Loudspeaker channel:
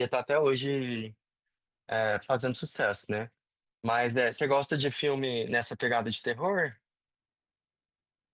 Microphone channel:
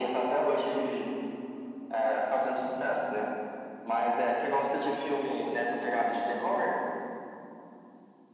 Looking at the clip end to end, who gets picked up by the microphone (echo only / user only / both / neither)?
echo only